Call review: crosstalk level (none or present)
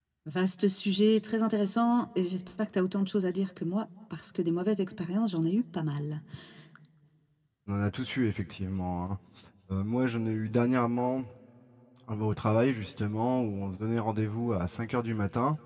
none